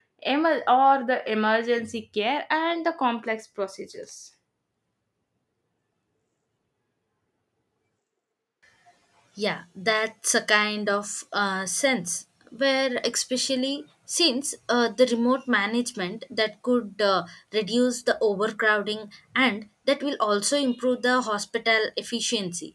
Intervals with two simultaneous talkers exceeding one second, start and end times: none

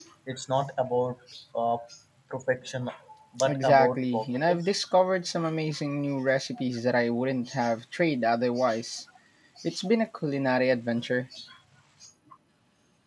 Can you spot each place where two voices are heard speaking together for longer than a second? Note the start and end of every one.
3.4-4.7

